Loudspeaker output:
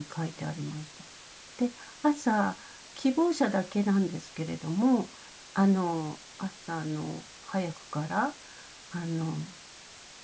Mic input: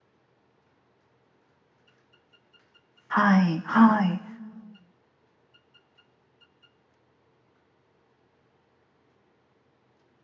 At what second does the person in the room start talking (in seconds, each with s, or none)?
3.1 s